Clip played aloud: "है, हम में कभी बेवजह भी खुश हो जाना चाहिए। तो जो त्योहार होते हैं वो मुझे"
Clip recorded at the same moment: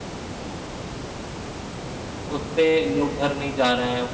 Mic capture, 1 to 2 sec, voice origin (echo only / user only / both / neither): neither